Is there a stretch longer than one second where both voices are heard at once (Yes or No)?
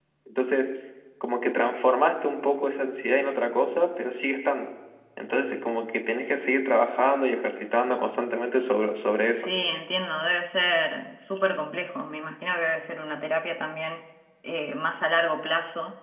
No